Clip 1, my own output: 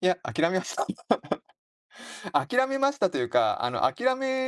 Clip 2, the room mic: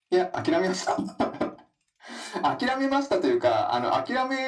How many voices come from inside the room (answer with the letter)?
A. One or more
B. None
B